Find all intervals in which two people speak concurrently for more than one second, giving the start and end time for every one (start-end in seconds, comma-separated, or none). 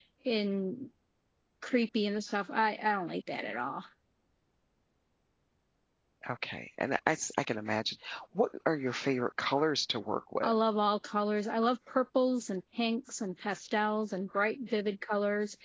none